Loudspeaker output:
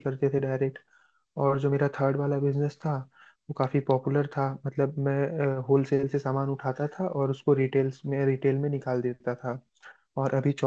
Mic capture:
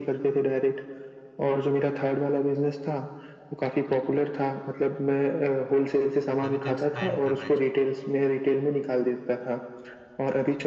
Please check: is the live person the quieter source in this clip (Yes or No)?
Yes